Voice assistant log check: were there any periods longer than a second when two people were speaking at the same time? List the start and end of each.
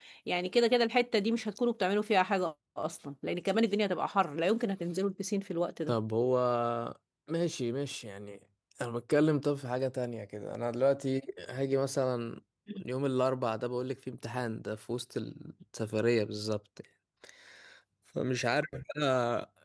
none

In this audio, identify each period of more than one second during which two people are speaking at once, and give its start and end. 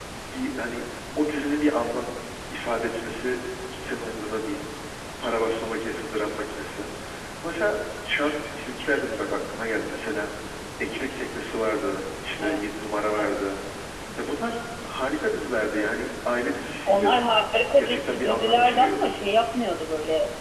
17.8-19.1

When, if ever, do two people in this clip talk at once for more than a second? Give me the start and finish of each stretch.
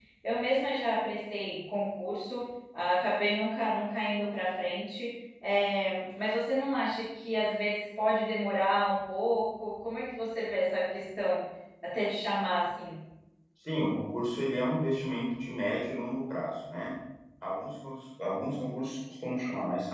none

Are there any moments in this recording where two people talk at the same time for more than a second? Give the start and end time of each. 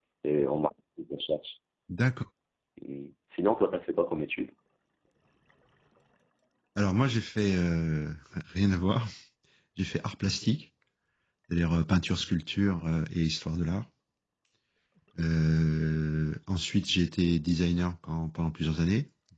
none

